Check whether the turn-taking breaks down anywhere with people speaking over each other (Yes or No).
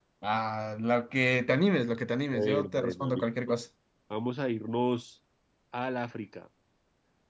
Yes